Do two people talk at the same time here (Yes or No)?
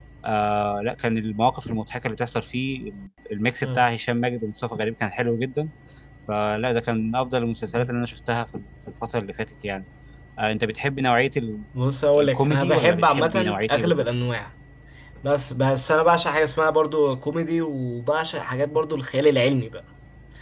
Yes